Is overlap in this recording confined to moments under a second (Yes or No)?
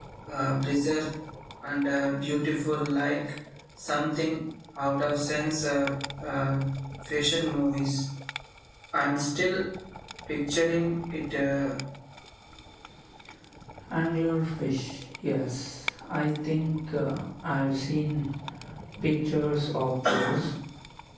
Yes